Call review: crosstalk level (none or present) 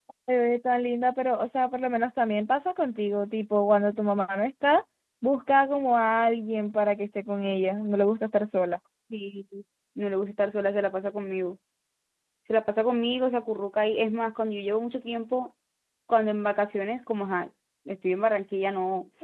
none